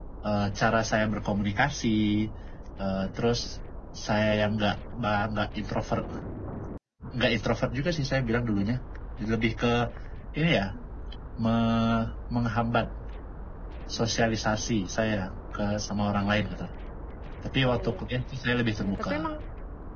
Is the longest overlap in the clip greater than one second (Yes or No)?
No